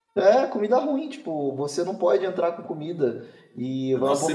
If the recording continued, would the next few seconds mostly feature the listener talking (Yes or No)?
Yes